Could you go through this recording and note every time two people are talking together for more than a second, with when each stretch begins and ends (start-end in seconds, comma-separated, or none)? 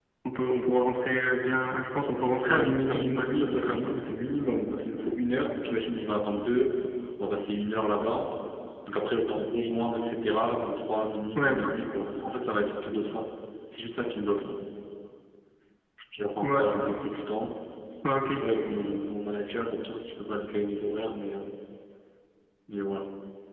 2.5-3.9